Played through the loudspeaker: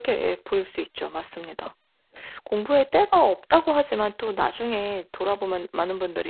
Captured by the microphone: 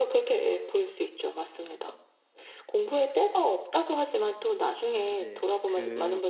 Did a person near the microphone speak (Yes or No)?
Yes